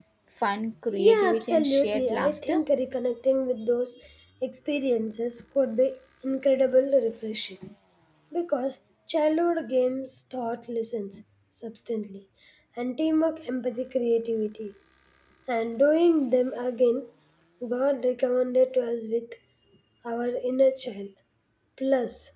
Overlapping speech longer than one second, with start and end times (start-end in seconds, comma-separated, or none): 1.0-2.6